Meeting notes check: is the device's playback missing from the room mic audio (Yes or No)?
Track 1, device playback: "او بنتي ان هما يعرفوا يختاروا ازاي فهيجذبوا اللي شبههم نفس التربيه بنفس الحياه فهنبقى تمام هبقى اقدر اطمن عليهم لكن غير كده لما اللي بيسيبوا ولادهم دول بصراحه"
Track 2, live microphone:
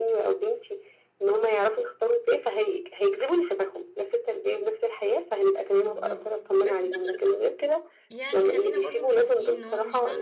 No